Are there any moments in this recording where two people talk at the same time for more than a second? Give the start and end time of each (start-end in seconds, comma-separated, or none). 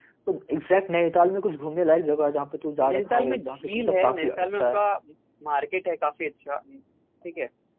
2.8-4.8